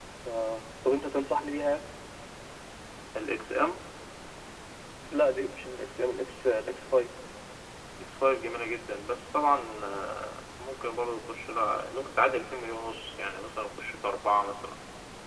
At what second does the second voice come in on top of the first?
none

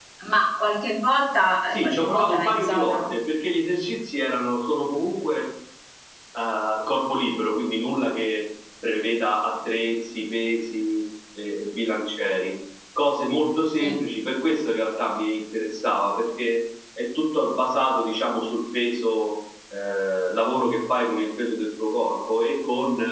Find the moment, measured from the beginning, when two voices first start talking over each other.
1.7 s

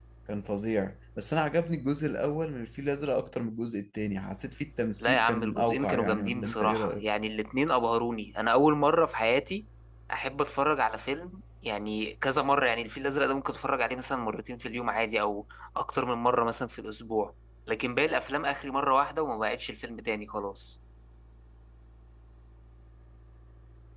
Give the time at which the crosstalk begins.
5.0 s

